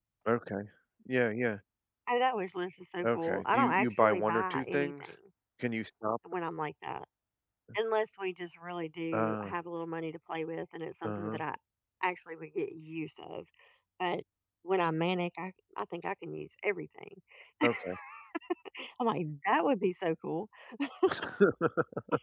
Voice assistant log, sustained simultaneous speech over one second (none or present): present